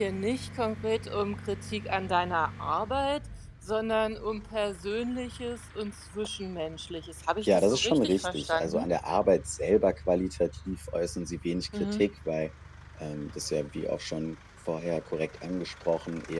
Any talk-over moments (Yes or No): Yes